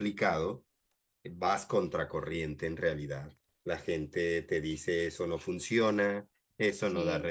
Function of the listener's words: listening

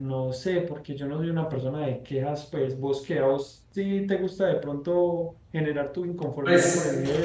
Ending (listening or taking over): taking over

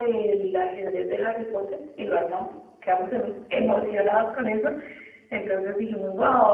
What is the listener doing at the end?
listening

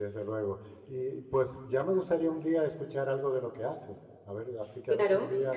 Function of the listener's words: taking over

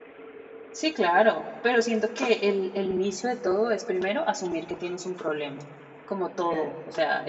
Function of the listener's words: listening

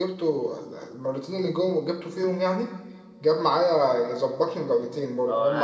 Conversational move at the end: taking over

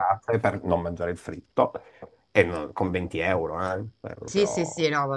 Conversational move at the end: taking over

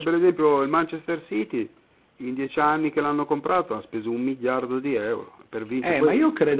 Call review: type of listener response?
taking over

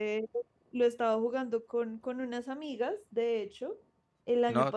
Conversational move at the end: listening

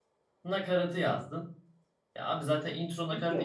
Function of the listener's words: listening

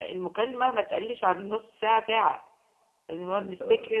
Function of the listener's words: listening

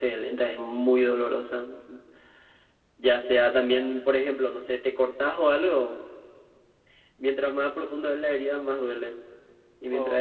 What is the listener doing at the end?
listening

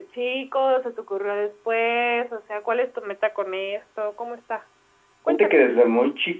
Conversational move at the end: taking over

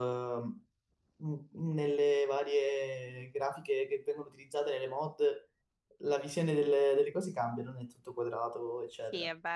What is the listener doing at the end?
taking over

